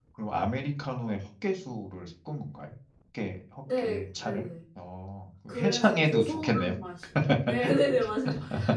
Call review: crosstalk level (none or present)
present